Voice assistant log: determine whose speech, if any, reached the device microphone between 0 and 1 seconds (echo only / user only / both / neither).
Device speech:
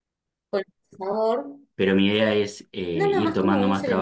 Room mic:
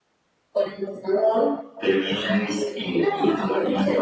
echo only